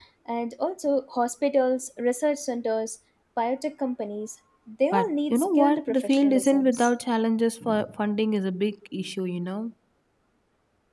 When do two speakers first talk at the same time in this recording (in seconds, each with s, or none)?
4.9 s